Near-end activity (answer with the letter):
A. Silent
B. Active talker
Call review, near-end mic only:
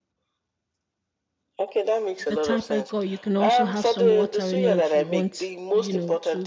B